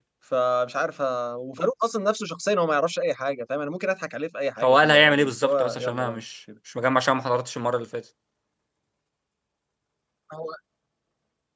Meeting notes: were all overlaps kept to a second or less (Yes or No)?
No